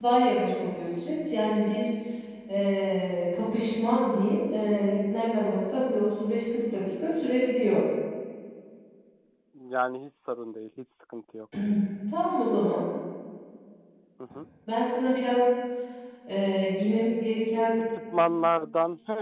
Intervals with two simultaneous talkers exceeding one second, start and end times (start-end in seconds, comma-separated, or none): none